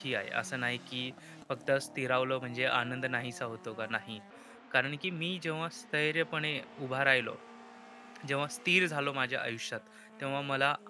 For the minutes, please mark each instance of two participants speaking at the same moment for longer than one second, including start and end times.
none

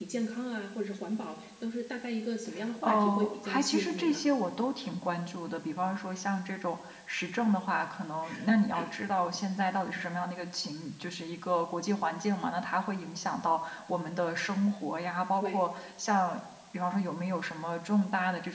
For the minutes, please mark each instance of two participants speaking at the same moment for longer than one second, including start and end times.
2.8-4.2

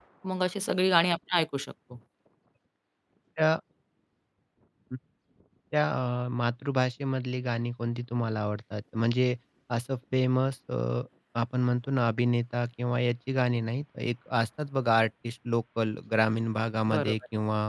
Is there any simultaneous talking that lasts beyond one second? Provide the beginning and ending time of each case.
none

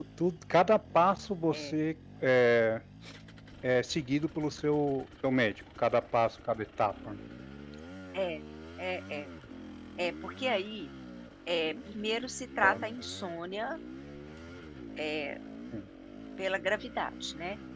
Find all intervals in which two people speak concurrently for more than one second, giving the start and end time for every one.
none

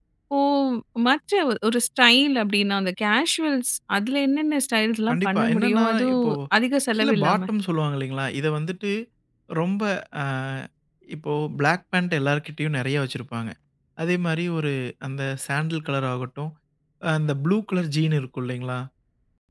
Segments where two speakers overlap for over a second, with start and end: 5.1-6.3

